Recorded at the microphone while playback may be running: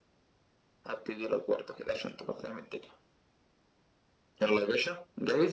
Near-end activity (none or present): none